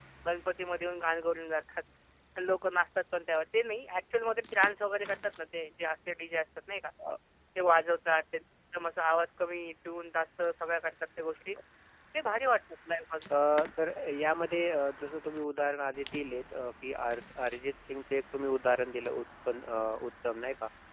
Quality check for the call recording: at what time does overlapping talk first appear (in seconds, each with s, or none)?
none